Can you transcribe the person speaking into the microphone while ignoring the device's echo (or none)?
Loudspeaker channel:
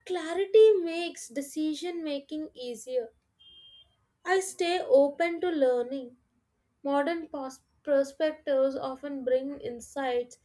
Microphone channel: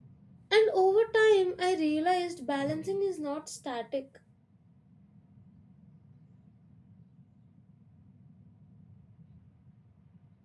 and over time I realized balancing is not static.